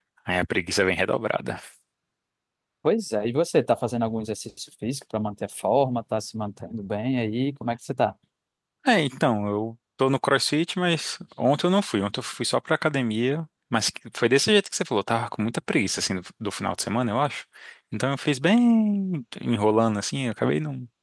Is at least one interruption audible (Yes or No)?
No